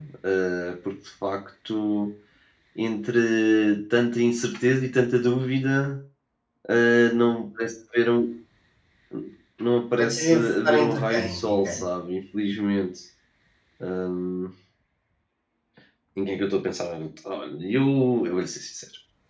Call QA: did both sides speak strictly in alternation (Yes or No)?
No